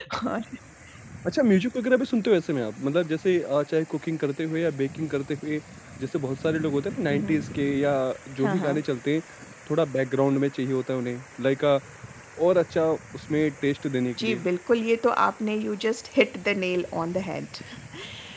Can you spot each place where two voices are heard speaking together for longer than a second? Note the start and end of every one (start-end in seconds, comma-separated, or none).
none